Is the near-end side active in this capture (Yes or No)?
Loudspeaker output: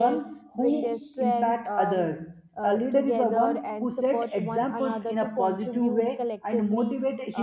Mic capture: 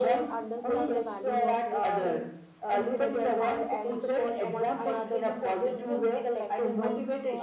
Yes